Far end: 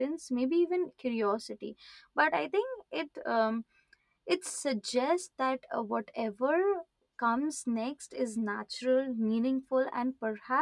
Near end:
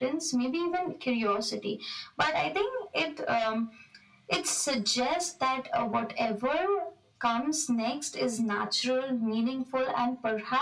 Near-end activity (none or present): none